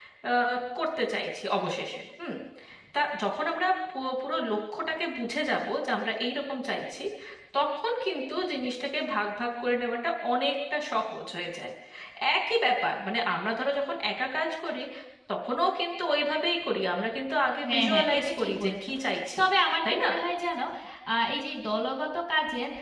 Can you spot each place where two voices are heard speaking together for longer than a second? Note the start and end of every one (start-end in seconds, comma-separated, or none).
17.6-18.9